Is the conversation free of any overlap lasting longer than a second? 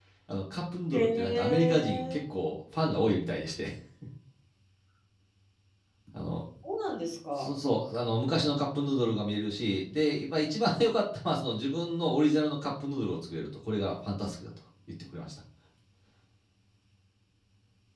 No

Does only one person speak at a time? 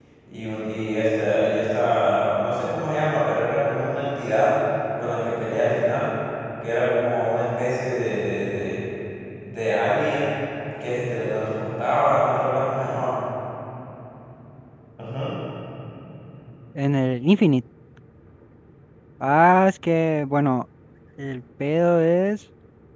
Yes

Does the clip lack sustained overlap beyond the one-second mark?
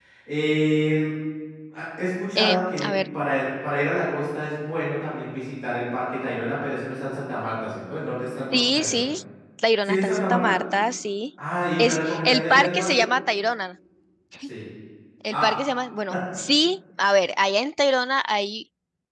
No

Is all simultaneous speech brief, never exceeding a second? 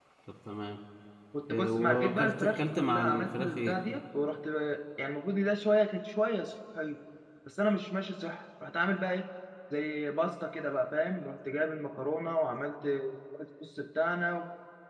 No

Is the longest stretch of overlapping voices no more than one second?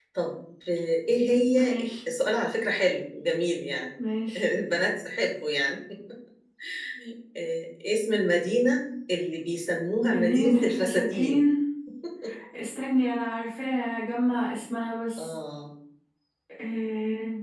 No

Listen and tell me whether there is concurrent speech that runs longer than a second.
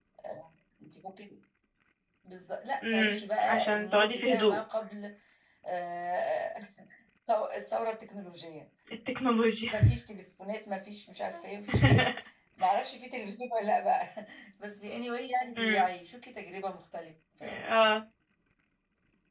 Yes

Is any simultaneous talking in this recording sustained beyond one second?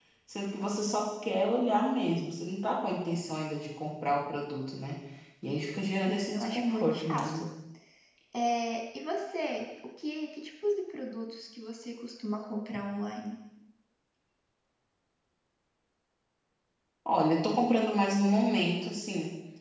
Yes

